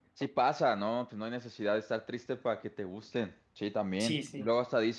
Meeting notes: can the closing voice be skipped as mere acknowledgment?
Yes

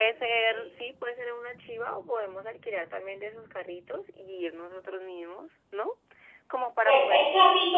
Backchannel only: No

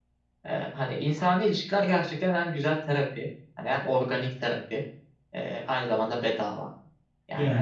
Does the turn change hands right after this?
No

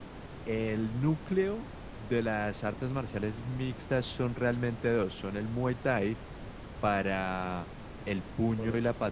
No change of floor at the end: Yes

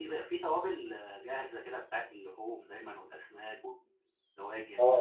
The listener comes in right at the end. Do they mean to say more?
Yes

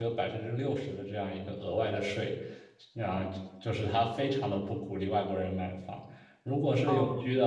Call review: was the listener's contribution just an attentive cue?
Yes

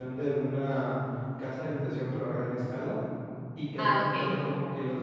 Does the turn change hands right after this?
No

